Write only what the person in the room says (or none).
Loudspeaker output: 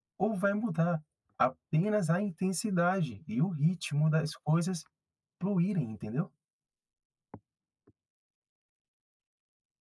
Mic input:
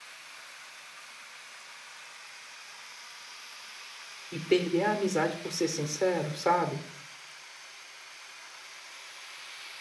e perder a amizade por ser sincero, sabe?